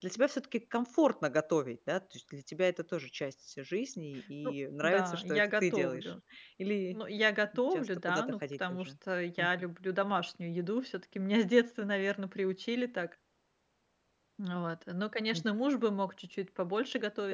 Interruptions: present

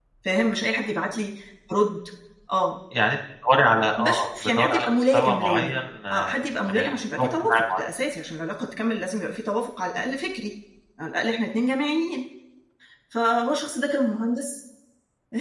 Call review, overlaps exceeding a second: present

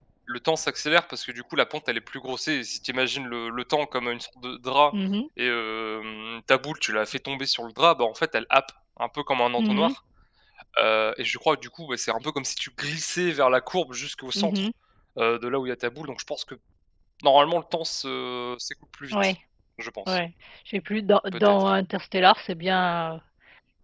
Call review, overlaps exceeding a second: none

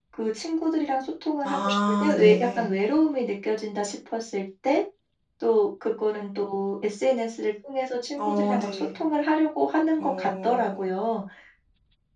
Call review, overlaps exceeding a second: present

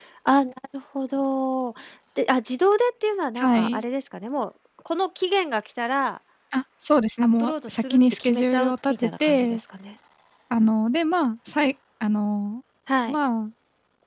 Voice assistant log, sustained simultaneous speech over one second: present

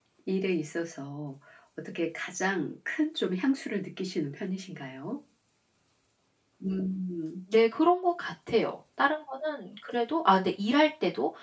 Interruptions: none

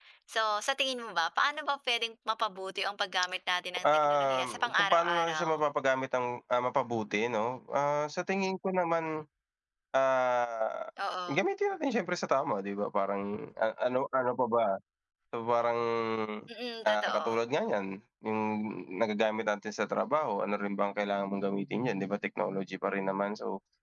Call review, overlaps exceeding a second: present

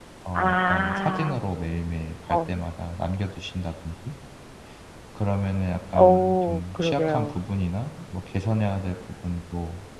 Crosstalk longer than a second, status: present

